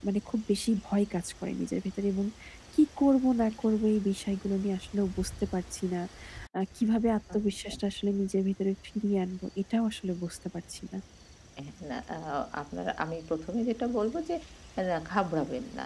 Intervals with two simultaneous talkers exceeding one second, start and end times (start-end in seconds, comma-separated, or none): none